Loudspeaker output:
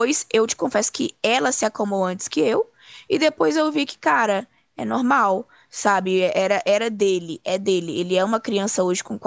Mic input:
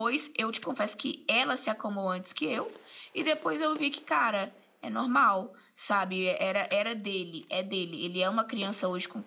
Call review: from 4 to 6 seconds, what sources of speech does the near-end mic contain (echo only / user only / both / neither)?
echo only